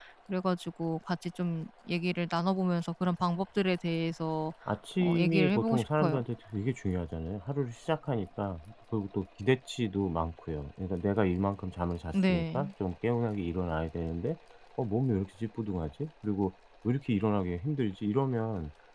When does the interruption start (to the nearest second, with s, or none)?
5 s